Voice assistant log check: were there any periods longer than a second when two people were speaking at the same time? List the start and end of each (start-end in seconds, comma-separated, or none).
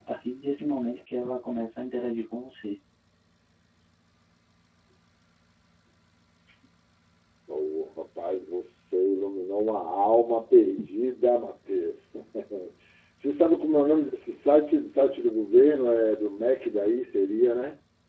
none